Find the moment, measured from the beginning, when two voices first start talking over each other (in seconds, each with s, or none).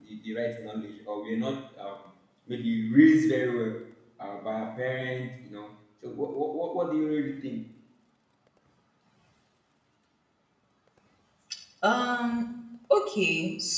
none